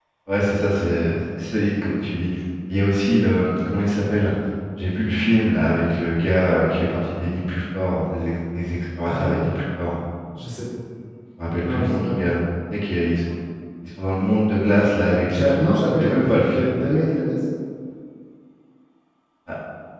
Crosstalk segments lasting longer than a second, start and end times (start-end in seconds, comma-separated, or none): 15.3-16.7